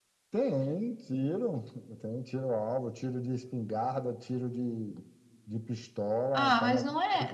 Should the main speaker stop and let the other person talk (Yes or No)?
Yes